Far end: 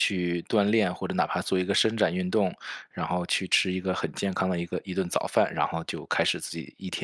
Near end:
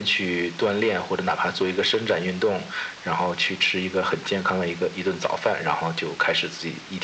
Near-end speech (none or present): none